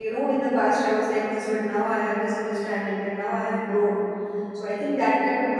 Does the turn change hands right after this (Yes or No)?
No